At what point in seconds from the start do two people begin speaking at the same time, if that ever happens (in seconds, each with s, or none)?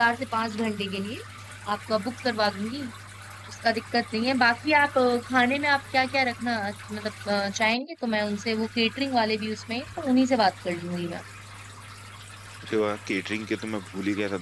none